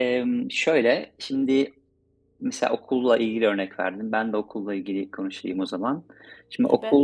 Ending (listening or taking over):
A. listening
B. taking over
A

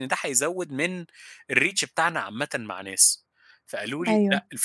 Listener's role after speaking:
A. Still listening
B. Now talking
A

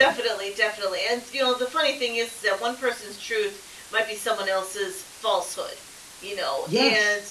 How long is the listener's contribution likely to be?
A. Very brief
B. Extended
A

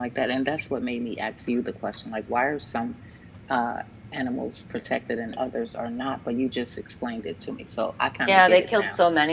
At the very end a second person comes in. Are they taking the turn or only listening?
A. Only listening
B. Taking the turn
B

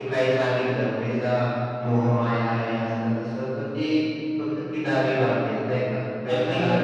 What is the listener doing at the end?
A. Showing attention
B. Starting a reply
B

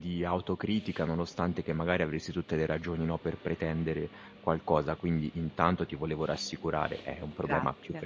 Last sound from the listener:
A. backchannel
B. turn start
A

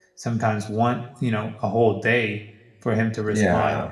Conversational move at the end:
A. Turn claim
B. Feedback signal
B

